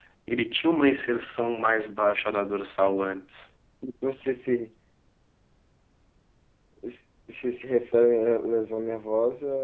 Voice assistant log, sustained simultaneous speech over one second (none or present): none